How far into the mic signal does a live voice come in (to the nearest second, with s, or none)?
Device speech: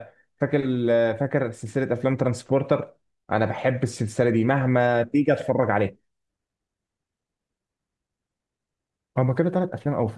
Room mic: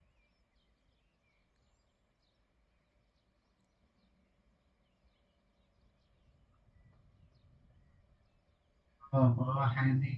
9 s